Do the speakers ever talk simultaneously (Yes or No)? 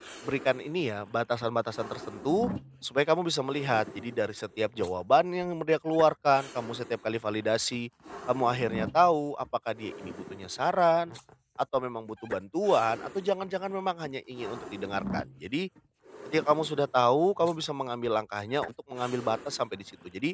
No